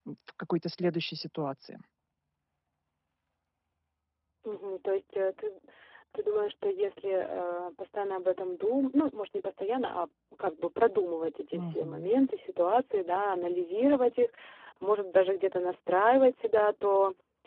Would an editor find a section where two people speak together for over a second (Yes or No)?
No